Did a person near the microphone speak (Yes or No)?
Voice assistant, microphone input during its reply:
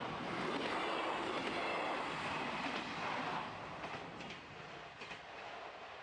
No